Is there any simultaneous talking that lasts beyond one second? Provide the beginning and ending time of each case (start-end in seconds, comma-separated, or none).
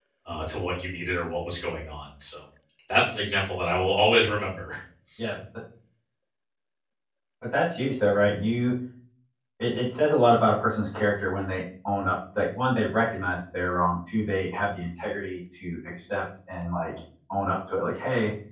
none